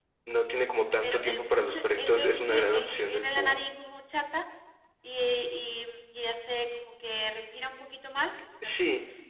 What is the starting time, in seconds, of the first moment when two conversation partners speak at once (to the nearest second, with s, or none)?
1 s